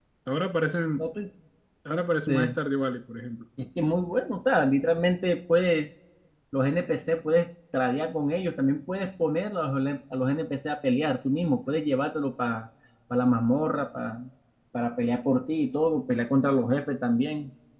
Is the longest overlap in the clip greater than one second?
No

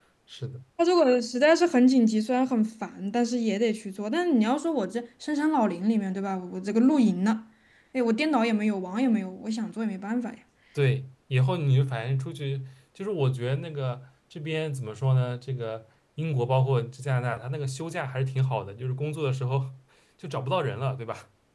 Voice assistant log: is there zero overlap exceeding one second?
Yes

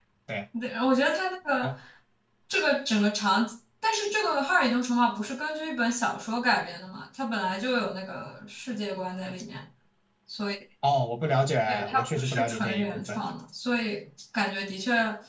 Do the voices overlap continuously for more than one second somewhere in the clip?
Yes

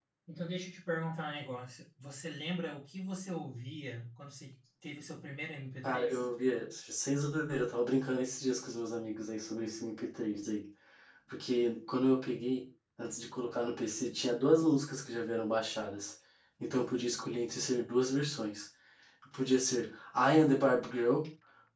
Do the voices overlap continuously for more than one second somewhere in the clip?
No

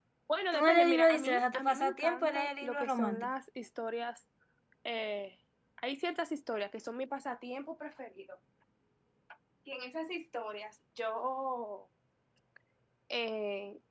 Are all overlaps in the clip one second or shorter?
No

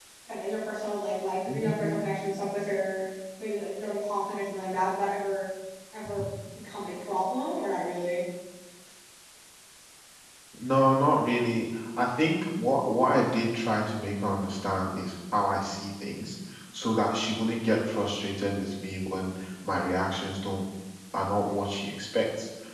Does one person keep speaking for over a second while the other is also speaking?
No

